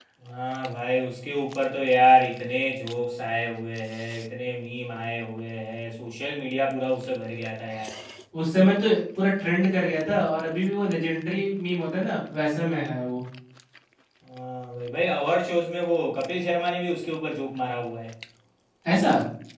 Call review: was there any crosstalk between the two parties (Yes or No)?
No